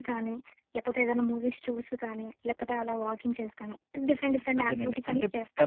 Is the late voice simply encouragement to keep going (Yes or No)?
No